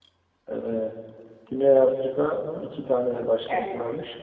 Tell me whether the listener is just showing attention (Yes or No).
Yes